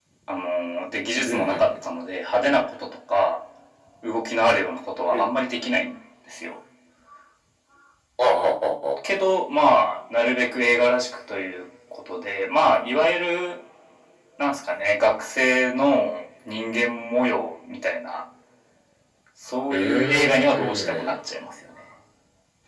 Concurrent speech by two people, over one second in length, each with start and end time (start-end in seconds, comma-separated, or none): 19.7-21.1